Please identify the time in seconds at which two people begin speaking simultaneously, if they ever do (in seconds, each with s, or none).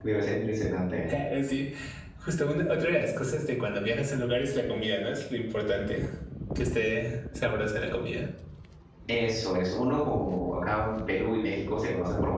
none